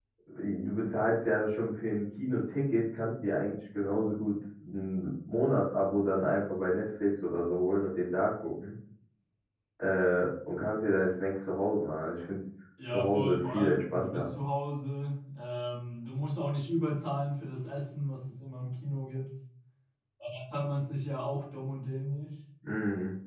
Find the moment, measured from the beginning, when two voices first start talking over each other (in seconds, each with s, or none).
12.8 s